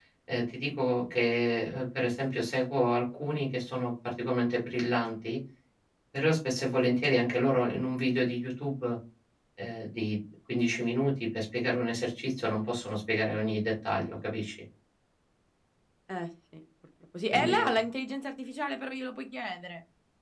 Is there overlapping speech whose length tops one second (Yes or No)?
No